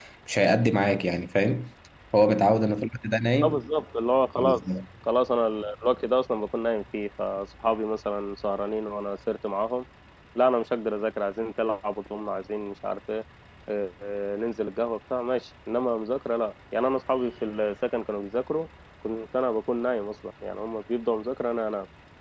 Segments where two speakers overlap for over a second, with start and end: none

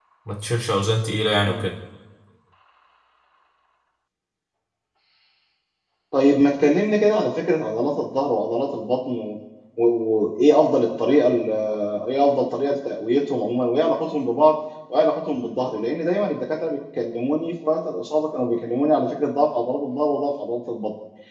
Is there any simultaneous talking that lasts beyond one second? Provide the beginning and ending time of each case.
none

